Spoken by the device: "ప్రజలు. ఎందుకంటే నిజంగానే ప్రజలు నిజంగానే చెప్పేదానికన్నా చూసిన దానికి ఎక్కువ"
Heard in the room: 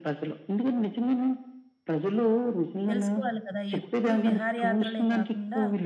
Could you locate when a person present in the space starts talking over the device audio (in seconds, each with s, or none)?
2.9 s